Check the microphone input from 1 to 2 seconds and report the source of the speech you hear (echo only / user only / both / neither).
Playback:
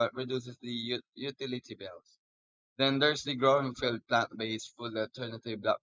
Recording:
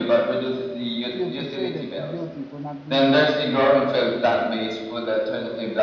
both